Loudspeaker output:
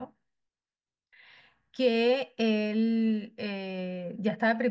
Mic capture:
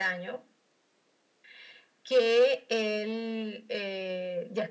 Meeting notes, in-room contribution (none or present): none